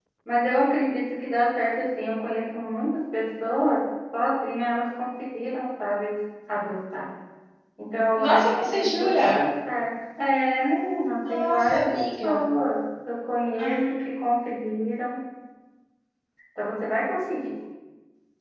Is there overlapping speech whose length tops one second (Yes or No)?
Yes